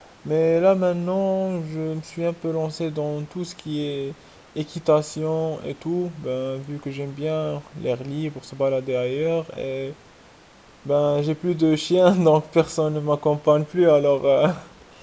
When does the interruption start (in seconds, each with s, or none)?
none